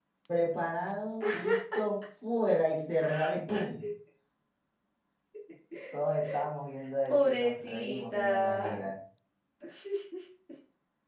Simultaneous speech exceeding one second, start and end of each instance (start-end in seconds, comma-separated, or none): 7.1-8.9